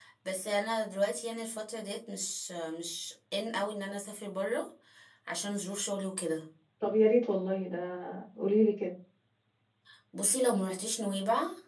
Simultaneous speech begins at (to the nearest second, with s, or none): none